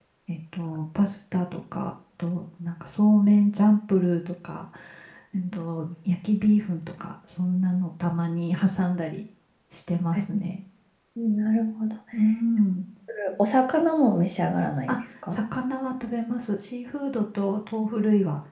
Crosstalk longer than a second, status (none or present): none